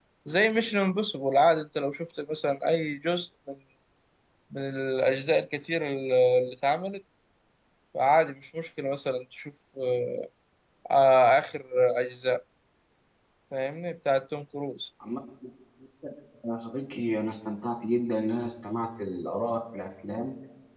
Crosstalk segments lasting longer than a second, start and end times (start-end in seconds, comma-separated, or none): none